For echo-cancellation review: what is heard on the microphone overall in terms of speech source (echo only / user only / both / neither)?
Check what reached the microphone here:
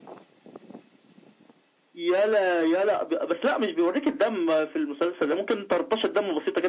echo only